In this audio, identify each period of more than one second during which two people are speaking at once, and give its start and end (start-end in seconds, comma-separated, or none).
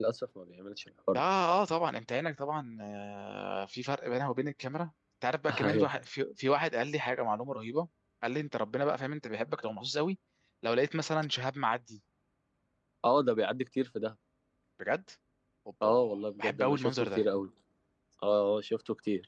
15.8-17.2